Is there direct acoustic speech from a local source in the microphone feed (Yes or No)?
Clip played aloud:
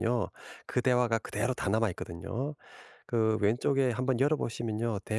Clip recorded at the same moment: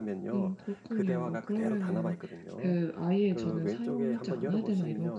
Yes